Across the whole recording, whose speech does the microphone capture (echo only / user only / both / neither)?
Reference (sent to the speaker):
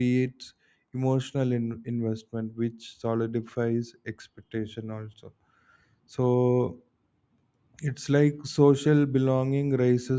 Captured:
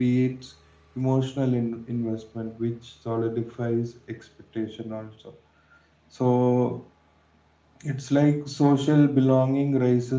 echo only